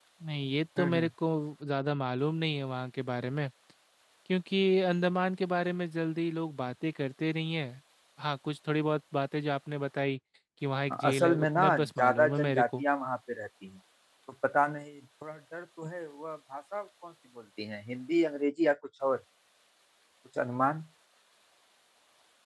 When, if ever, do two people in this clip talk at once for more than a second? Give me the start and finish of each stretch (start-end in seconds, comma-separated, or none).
10.9-12.8